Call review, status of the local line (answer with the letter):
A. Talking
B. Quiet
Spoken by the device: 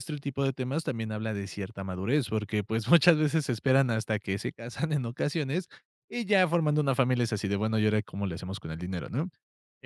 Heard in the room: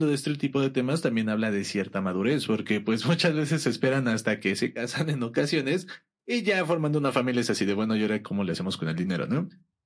B